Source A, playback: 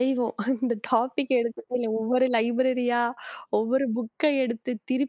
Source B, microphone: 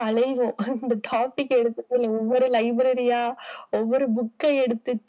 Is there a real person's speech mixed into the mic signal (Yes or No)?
No